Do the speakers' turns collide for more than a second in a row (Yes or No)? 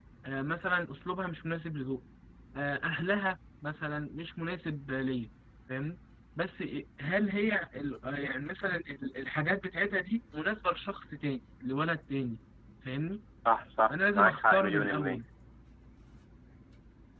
Yes